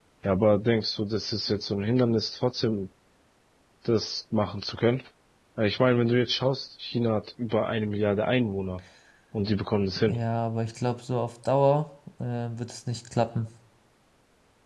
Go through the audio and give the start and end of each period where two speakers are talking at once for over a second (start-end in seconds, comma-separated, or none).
none